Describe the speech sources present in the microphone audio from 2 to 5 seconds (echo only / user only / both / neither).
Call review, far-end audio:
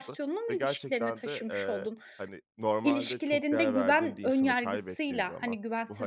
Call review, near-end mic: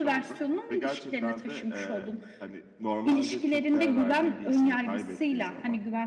echo only